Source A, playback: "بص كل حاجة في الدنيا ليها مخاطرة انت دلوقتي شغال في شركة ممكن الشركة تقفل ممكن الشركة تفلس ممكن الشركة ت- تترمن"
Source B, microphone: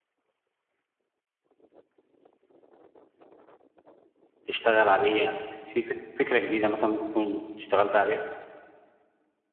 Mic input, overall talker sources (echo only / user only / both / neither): user only